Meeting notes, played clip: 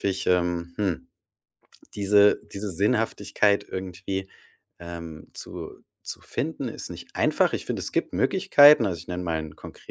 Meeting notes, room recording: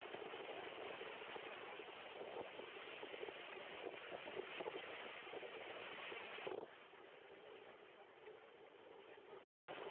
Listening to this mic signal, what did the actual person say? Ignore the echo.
none

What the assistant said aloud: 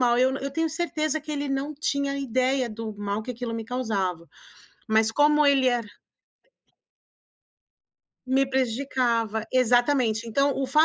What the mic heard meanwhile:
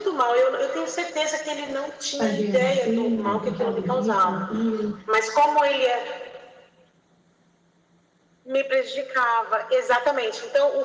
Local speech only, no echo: fazer assim, por causa disso ou aquilo".

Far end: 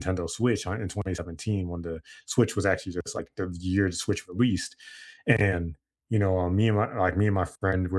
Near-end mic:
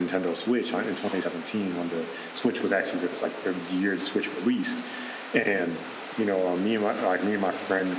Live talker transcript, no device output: none

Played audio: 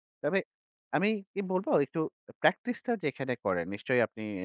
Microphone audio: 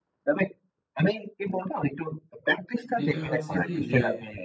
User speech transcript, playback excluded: যেটা হচ্ছে কি যে

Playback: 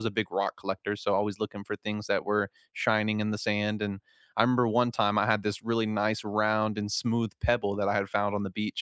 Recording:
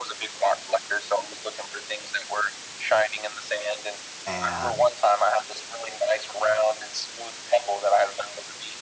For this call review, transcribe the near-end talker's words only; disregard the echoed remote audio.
and

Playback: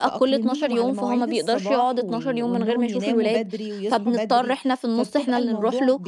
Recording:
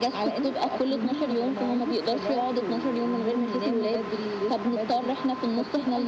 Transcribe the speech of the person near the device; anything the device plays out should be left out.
none

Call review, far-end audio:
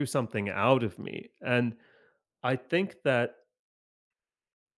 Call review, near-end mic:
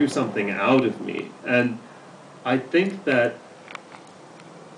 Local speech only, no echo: none

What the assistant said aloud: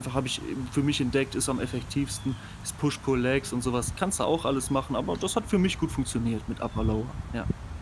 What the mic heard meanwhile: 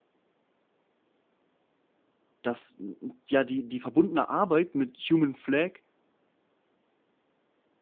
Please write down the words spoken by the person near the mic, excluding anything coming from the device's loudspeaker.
dass, n n ja, die die verbundene Arbeit mit Human Flag

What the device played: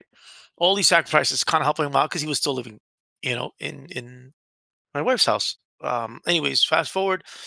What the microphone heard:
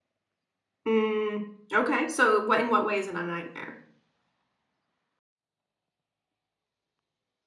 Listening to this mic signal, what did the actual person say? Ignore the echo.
Mm, okay, so what in what way is it a nightmare?

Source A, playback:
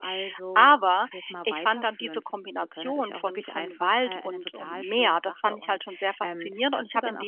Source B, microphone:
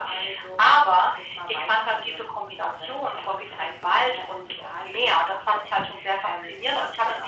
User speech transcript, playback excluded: none

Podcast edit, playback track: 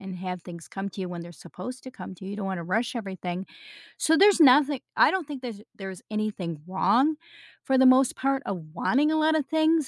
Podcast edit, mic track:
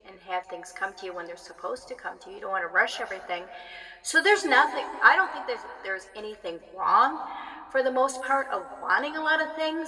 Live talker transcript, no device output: none

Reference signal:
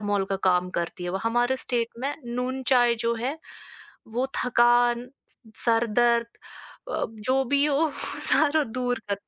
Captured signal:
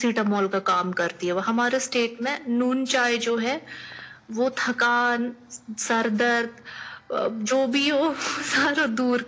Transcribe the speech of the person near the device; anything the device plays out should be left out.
none

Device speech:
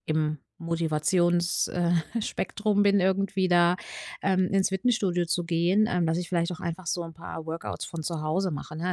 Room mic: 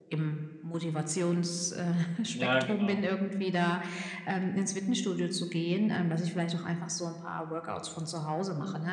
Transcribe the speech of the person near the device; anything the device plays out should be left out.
ja, genau.

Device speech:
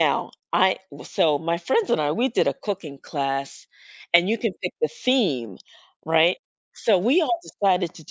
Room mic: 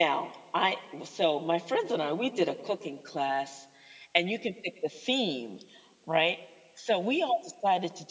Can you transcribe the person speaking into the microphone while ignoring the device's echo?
none

